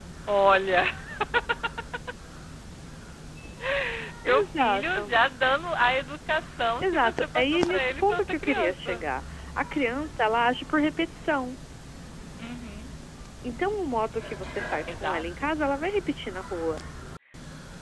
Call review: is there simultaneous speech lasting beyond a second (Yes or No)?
Yes